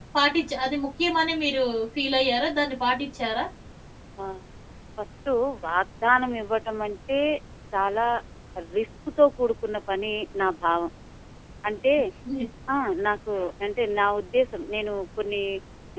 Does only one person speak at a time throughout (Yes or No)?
Yes